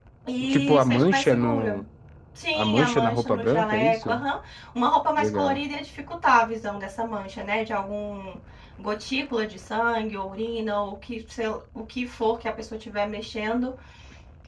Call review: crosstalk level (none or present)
present